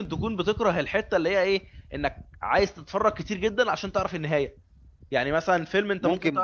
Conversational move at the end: taking over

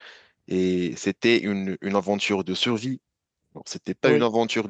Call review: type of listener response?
listening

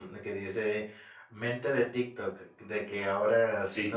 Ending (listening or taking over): listening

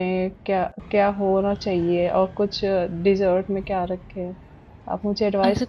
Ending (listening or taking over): taking over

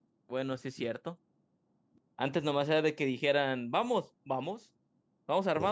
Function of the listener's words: listening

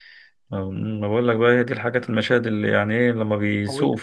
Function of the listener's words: listening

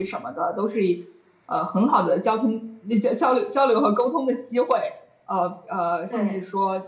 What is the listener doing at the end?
listening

